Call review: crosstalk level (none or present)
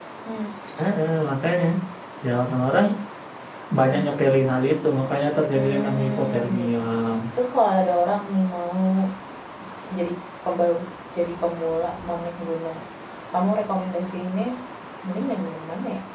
present